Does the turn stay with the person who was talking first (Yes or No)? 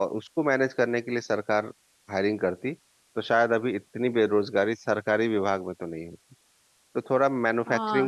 No